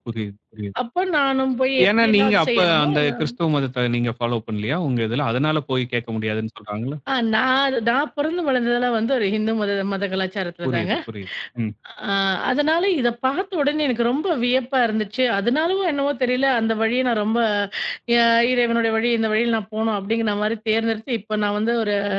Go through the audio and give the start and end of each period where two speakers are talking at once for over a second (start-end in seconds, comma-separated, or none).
1.9-3.1